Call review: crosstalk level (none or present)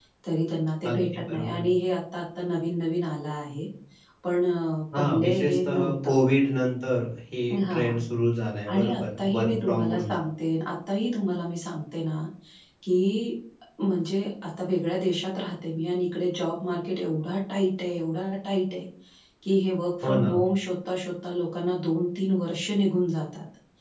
present